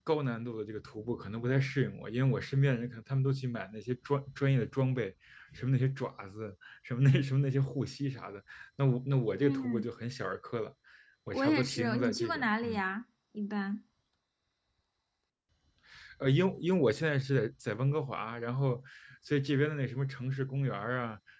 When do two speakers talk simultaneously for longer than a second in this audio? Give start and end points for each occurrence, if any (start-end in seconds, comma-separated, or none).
11.3-12.8